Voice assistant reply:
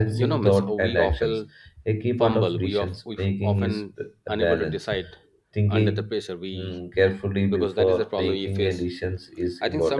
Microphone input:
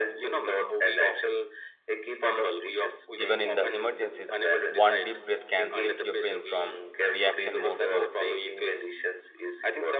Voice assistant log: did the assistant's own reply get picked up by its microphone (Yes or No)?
Yes